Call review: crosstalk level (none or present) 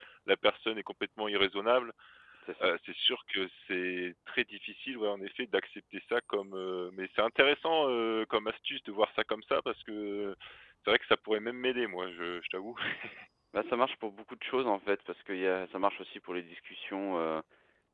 none